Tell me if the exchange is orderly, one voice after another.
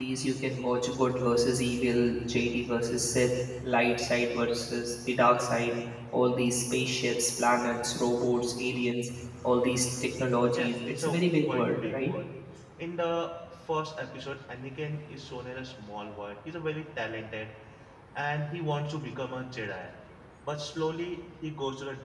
No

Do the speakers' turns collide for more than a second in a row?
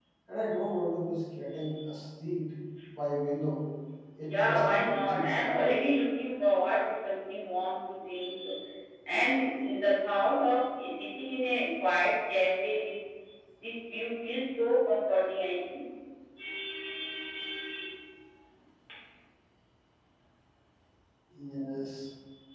Yes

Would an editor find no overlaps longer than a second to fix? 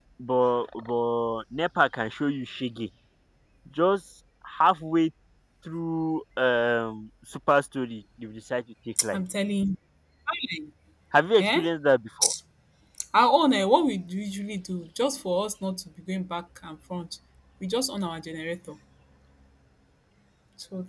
Yes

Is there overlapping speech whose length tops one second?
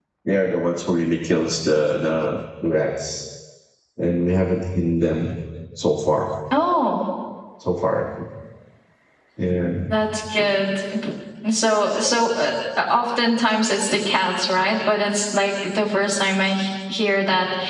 No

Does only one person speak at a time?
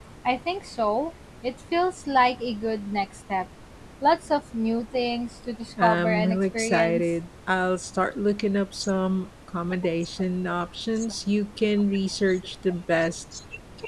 No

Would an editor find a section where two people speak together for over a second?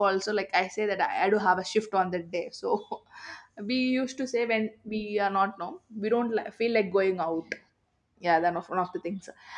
No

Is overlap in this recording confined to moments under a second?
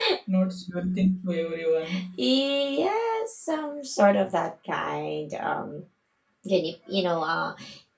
Yes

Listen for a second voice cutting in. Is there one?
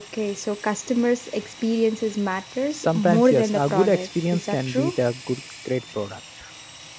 Yes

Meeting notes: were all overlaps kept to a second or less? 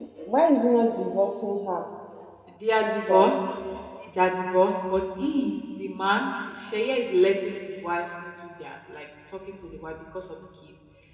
Yes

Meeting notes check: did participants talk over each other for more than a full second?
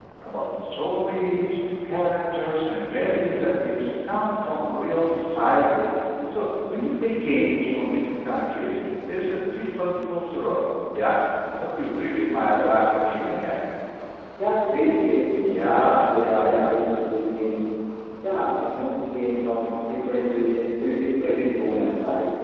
Yes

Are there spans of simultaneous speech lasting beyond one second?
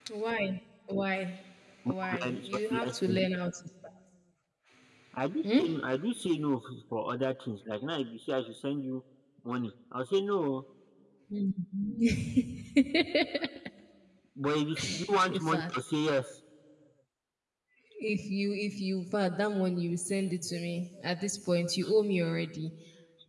Yes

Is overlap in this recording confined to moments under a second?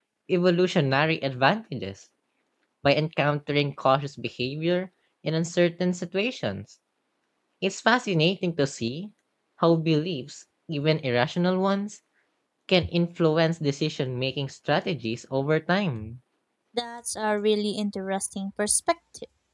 Yes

